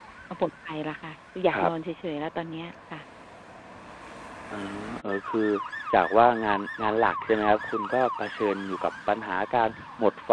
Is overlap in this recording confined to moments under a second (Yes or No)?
Yes